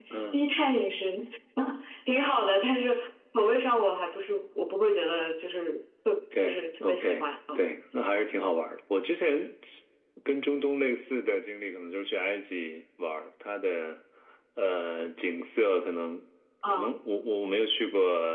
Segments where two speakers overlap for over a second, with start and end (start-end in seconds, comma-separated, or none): 6.3-7.7